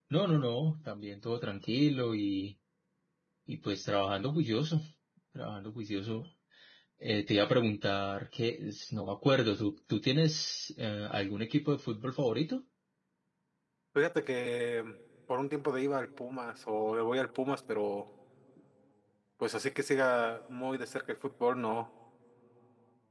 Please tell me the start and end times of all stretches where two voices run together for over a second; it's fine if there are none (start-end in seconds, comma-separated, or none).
none